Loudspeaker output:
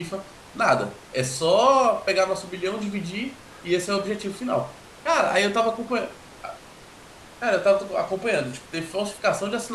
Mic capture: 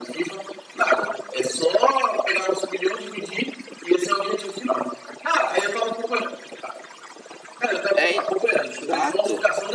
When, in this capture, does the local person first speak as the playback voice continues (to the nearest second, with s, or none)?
8 s